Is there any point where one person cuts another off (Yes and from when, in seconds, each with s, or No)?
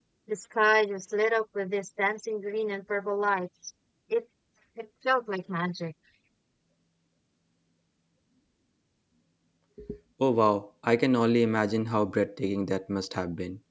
No